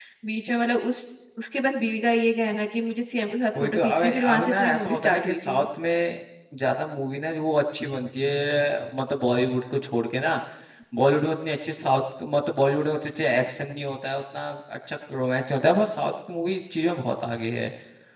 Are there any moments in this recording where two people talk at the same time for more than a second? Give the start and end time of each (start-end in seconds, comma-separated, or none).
3.6-5.6